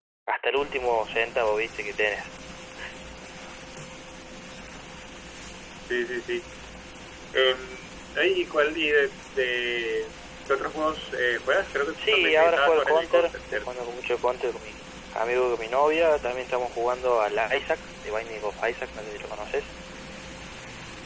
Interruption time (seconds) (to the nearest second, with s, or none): 12 s